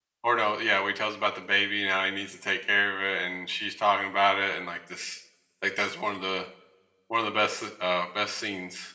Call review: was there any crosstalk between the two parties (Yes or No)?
No